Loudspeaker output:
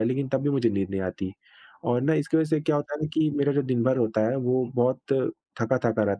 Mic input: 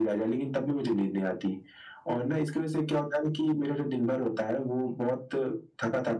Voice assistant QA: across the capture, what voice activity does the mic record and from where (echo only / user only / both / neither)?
echo only